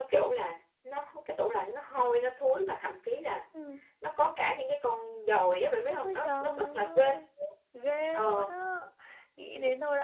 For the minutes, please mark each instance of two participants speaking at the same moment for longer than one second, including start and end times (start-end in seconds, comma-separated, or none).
5.9-7.1